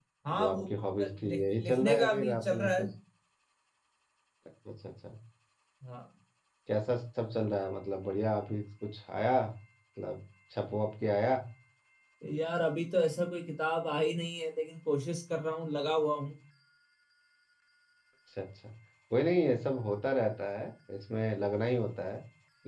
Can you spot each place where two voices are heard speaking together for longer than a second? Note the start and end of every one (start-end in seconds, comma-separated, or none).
1.1-2.8